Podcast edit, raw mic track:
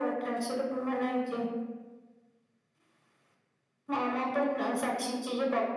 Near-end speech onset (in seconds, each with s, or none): none